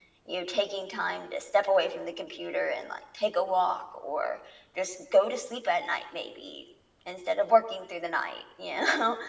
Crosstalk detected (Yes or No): No